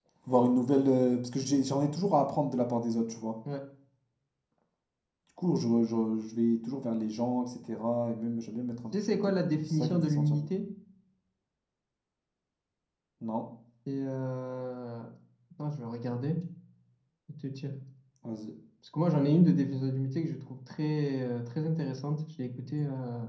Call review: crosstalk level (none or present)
present